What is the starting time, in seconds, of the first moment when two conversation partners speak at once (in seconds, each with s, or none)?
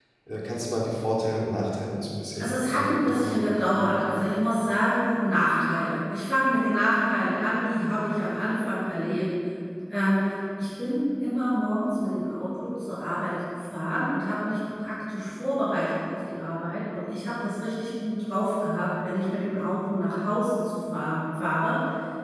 2.4 s